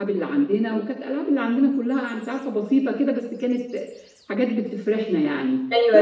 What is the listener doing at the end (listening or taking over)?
taking over